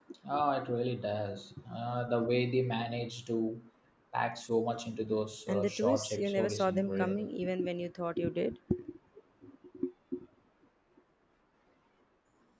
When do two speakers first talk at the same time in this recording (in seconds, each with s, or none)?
5.5 s